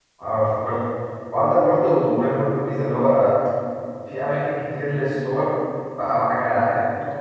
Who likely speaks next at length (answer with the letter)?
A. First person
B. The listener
A